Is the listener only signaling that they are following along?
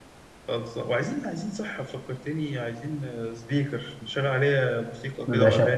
No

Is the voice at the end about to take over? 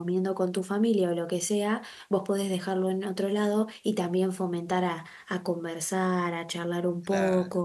No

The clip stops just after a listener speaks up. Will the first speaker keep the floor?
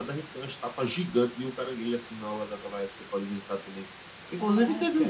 Yes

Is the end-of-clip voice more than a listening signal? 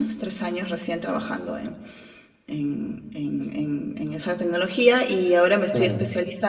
No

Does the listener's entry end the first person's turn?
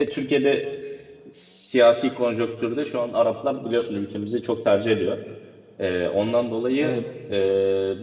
No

